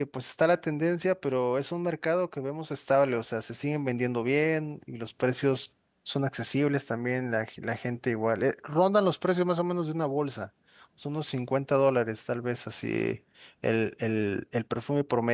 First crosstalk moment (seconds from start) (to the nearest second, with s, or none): none